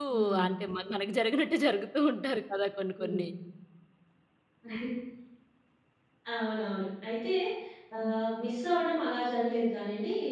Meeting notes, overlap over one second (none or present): none